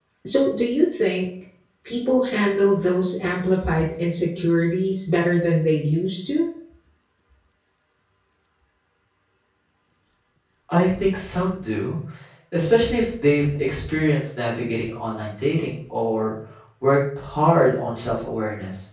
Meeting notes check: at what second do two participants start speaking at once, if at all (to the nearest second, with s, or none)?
none